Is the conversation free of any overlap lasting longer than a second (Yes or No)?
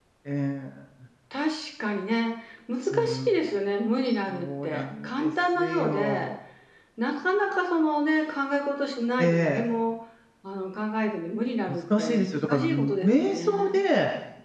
No